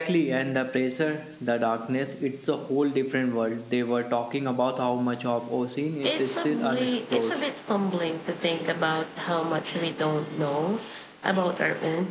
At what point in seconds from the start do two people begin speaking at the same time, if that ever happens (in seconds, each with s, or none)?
6.0 s